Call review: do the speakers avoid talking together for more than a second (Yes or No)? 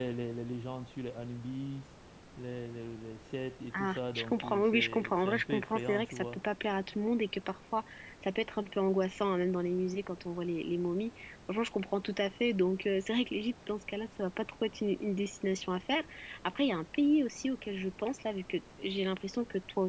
No